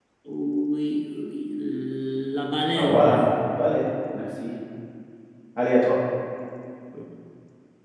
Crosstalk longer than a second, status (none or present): none